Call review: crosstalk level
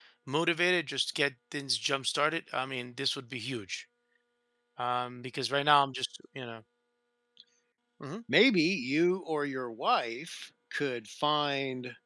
none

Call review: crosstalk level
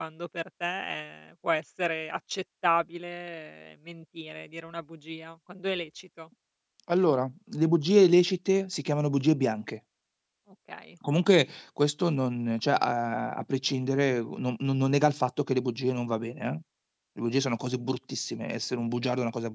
none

